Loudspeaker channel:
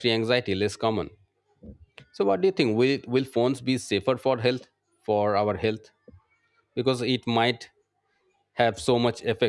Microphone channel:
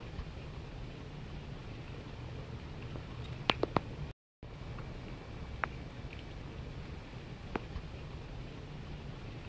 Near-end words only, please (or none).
none